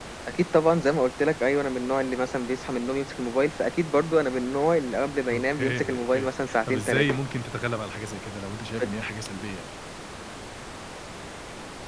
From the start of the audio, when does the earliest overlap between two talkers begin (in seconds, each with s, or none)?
5.3 s